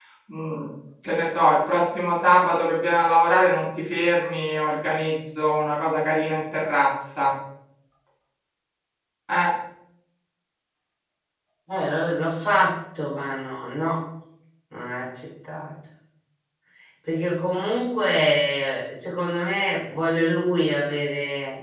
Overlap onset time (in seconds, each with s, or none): none